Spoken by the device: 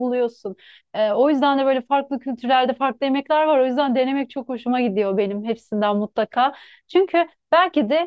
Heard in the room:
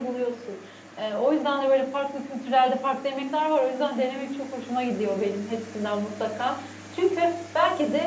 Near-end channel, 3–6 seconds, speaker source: echo only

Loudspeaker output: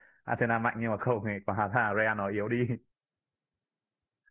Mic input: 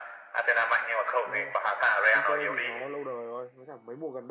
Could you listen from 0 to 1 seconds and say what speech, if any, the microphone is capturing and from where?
echo only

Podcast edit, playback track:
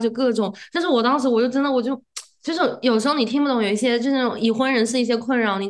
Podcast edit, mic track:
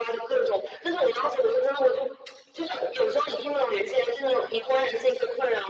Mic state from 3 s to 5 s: echo only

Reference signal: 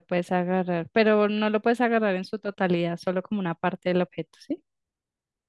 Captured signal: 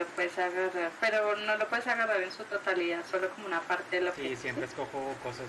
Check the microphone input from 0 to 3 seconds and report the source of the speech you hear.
echo only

